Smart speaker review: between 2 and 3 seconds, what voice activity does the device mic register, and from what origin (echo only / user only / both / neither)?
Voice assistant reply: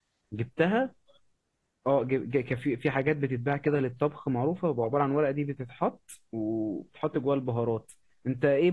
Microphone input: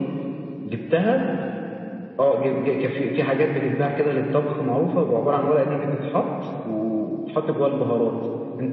echo only